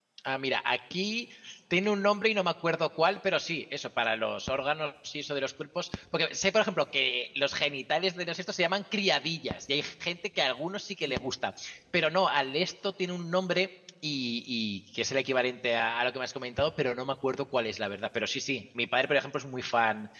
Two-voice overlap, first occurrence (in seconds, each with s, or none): none